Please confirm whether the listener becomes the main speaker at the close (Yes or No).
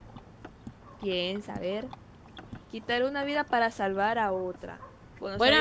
Yes